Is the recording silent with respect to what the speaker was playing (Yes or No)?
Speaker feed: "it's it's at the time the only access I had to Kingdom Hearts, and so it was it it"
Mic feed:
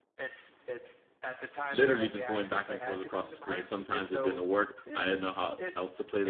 No